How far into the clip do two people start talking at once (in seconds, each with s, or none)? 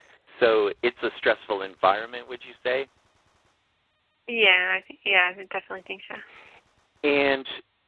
none